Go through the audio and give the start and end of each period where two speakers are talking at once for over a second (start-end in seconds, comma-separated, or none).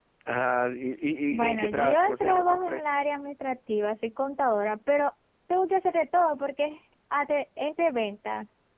1.3-3.0